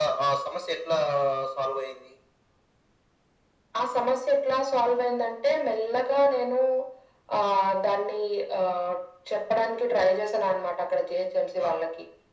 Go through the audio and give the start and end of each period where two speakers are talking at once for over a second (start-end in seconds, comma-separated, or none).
none